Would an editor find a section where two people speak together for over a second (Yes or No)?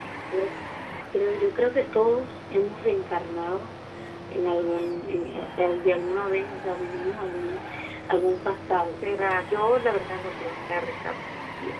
No